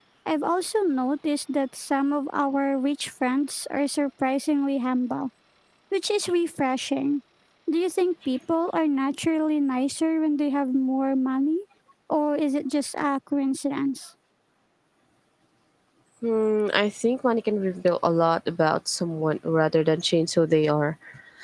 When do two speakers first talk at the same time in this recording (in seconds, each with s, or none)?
none